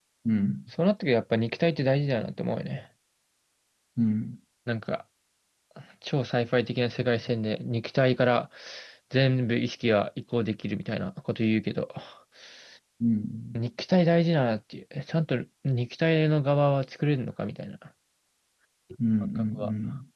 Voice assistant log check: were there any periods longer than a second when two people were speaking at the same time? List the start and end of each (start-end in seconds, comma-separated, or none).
none